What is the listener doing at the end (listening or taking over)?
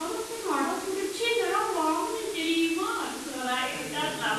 listening